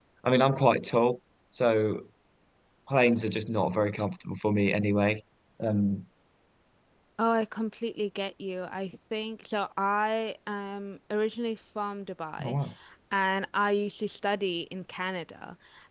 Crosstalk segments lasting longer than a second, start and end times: none

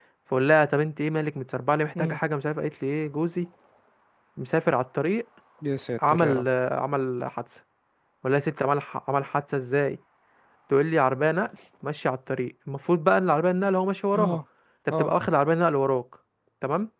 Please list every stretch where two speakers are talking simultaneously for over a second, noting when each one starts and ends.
none

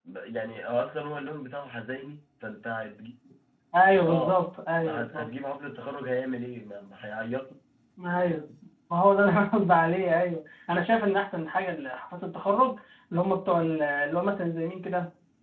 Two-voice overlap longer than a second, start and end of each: none

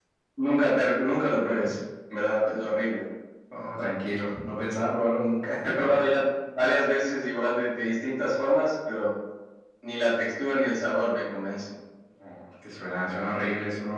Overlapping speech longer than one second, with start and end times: none

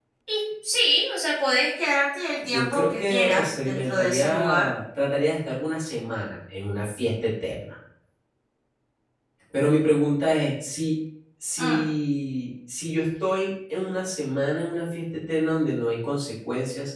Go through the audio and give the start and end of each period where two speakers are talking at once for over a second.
2.4-4.7

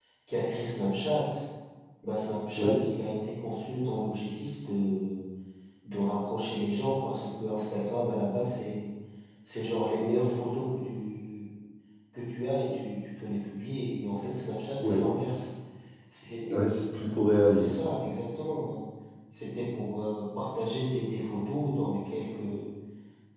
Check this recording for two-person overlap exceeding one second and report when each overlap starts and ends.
none

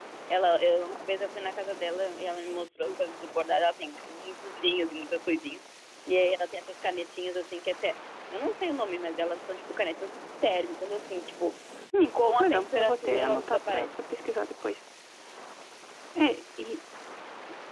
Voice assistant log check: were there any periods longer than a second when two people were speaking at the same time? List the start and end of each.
12.0-13.9

